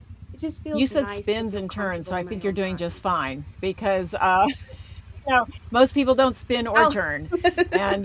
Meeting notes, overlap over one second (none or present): present